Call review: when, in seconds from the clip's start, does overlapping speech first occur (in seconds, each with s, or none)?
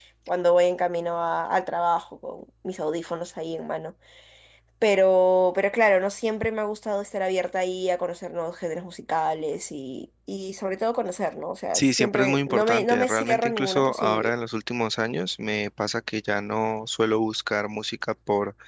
11.7 s